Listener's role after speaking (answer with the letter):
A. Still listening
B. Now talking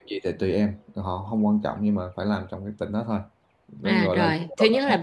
B